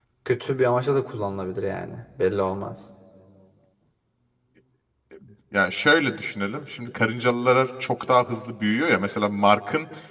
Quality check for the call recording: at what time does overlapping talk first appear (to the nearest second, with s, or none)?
none